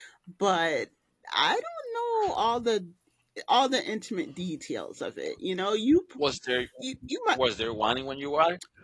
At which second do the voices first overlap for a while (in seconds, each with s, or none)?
none